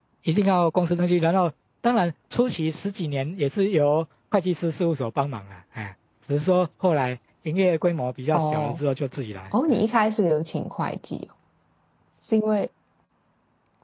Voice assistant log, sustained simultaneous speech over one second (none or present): none